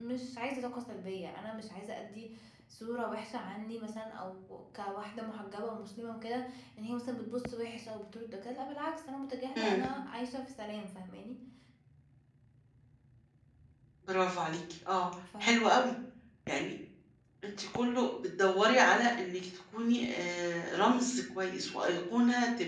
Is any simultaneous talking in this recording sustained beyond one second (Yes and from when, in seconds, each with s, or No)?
No